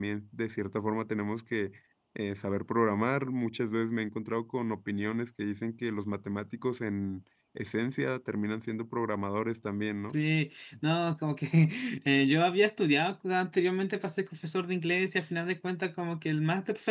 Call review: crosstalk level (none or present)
none